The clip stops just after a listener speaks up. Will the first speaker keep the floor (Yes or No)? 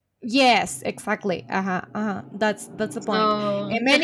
Yes